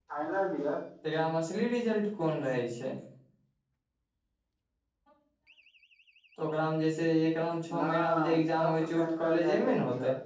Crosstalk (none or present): present